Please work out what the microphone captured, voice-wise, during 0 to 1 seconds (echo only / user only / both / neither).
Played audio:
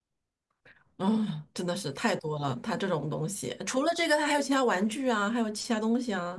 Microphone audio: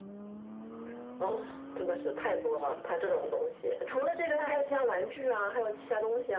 neither